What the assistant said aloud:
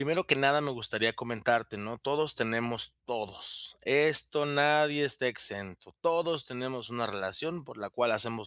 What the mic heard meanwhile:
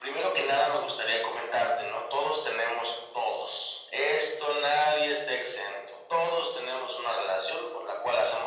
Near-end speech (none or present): none